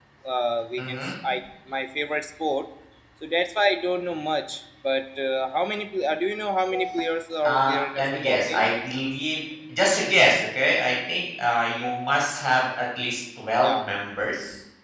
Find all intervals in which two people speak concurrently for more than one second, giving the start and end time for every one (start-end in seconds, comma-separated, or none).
7.5-8.7